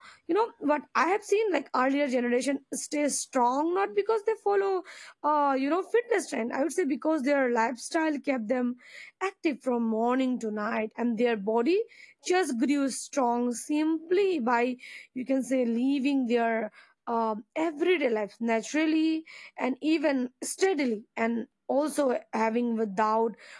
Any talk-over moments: No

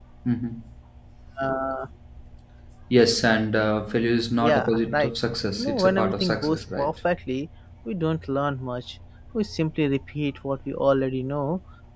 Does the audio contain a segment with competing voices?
Yes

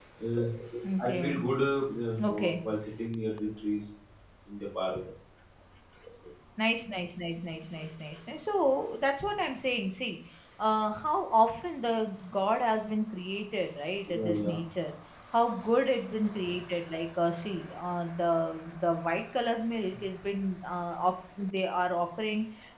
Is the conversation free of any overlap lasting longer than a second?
Yes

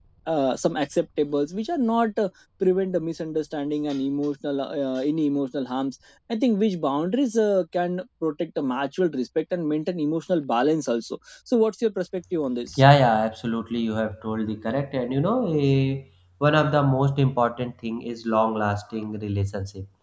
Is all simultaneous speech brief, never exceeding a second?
Yes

